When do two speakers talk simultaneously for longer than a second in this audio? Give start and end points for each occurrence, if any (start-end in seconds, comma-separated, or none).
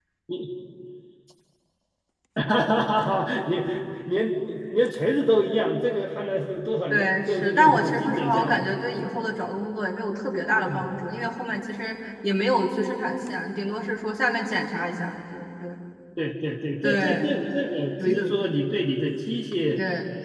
6.9-8.7